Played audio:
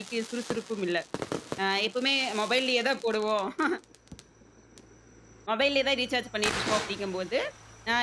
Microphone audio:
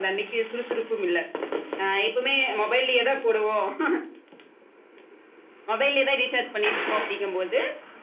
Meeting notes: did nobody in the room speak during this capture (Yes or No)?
Yes